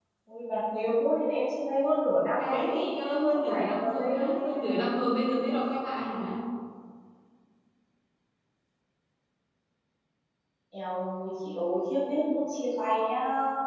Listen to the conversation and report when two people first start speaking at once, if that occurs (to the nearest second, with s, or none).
2 s